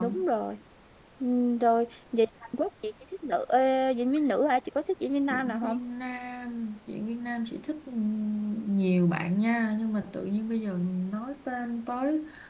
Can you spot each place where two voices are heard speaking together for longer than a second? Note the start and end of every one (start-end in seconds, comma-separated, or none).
none